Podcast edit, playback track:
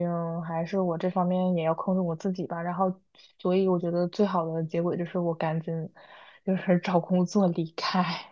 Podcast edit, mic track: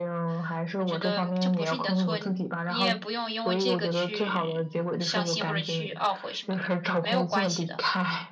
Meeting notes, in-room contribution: present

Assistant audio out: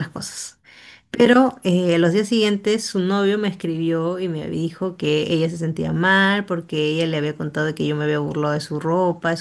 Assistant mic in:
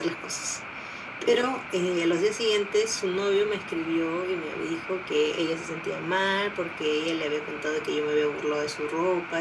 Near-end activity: none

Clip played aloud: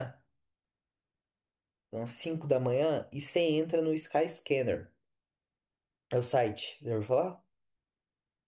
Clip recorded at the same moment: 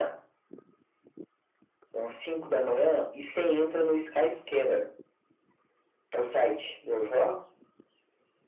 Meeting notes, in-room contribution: none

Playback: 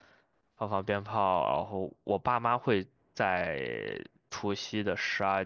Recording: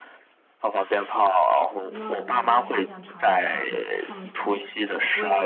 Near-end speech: present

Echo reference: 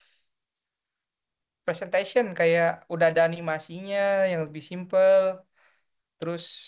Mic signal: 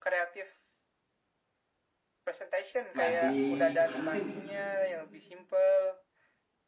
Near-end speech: present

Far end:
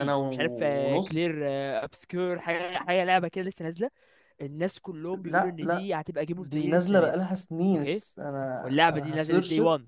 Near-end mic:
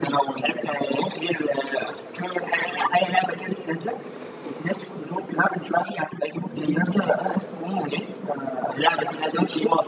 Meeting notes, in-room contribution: none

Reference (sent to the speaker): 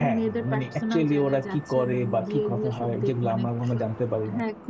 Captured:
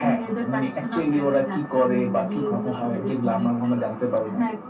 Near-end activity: none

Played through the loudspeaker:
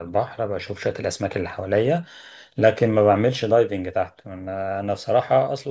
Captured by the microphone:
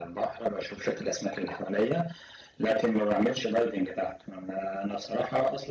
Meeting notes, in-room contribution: none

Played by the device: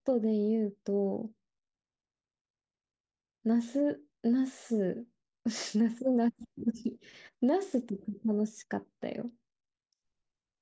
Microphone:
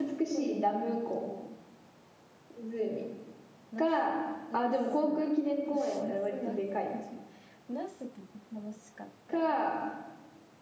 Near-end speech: present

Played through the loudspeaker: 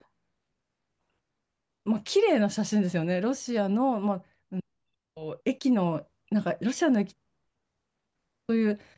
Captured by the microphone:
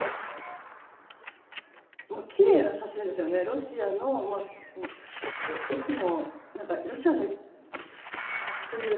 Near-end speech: none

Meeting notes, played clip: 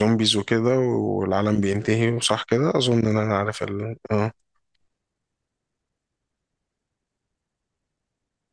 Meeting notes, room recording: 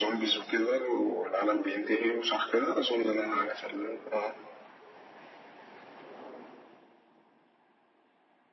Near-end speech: none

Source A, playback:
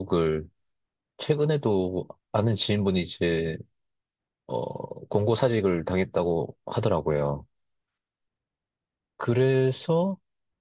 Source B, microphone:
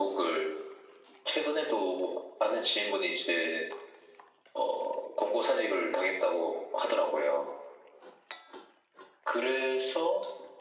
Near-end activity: none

